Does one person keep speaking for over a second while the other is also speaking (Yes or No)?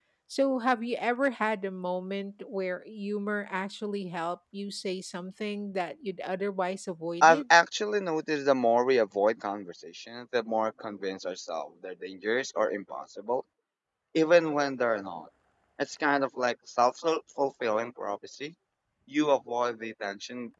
No